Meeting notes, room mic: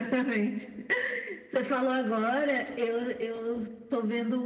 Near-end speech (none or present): none